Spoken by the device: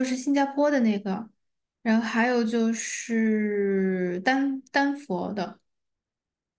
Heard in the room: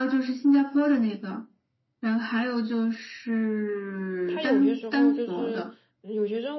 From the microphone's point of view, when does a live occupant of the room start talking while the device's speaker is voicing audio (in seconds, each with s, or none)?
4.2 s